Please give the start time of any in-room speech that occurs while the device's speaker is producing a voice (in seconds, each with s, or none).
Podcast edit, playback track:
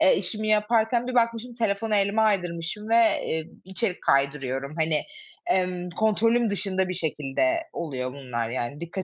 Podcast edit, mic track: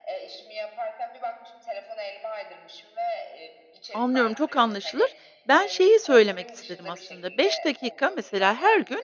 3.9 s